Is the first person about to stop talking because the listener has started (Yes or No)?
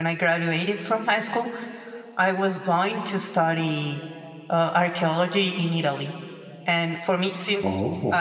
No